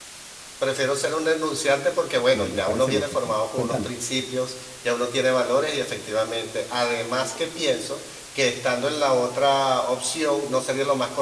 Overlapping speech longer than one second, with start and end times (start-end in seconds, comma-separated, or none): 2.3-3.9